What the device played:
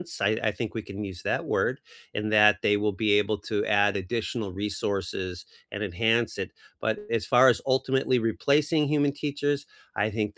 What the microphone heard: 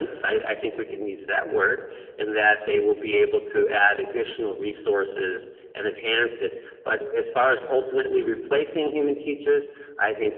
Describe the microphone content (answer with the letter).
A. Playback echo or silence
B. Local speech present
A